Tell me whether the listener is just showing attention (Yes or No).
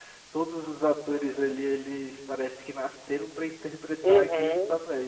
No